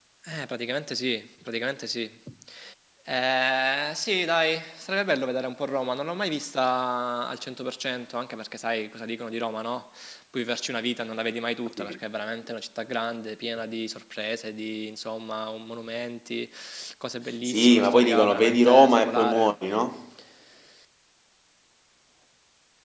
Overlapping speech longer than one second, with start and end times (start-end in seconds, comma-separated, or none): 17.4-19.6